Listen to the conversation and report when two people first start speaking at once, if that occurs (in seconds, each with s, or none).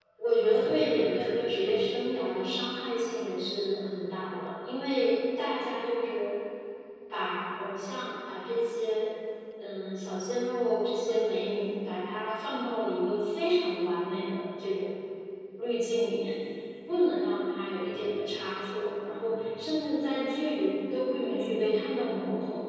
0.5 s